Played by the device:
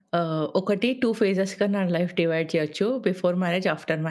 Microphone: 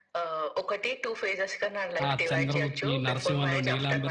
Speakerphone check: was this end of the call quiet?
No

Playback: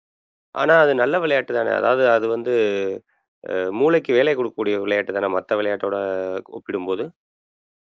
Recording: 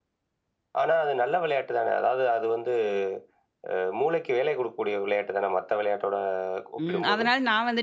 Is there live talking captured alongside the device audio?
Yes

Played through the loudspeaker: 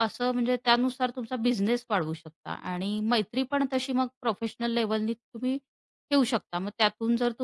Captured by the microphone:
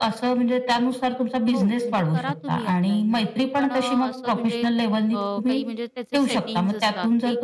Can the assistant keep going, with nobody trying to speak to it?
No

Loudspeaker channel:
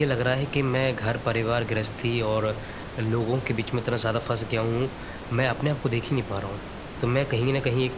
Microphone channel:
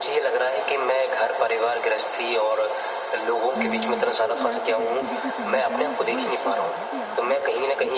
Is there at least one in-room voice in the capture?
Yes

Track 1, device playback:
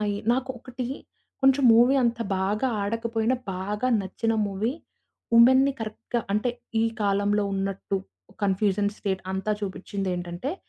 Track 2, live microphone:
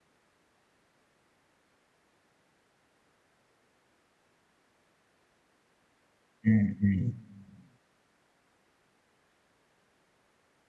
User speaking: Yes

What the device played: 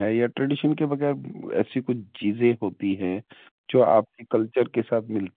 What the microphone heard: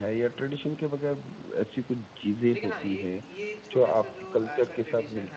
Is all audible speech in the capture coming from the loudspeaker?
No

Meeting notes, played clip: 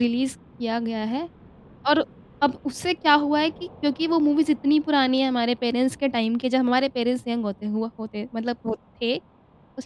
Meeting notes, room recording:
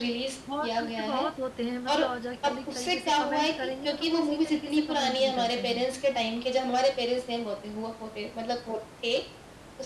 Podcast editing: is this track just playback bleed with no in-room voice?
No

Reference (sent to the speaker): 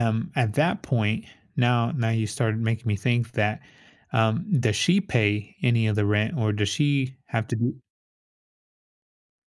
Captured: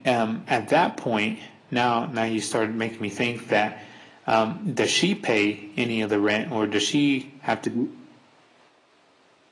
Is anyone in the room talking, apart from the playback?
No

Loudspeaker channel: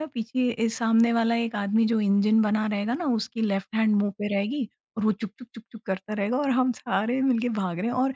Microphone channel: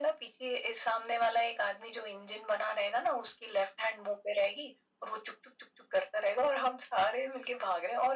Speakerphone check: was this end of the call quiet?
Yes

